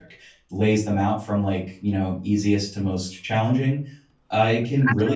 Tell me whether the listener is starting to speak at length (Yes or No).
No